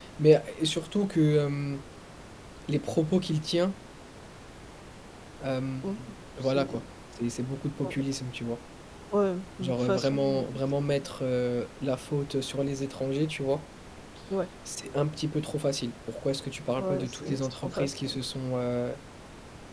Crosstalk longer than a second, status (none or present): present